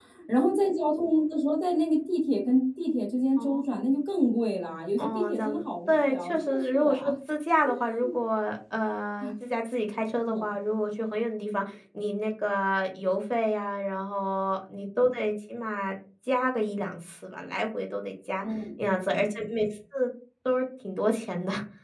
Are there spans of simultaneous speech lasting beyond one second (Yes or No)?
Yes